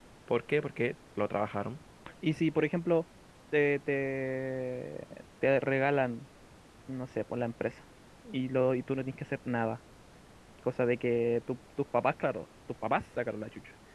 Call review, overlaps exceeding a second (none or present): none